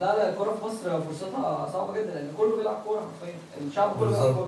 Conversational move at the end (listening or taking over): taking over